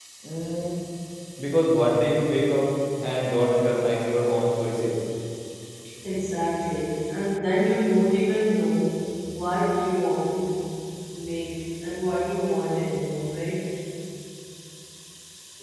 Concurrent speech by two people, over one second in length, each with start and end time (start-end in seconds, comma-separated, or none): none